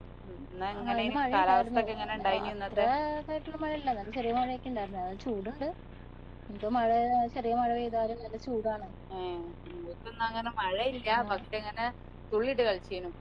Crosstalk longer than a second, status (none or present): present